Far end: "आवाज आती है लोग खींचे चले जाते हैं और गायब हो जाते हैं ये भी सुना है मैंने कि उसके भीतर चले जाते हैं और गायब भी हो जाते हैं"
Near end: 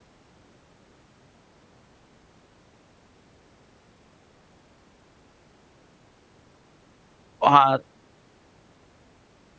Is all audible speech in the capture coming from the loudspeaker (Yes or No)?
No